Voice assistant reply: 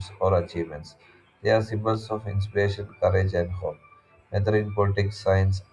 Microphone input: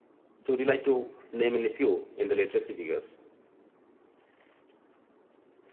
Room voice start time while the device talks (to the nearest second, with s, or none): 0 s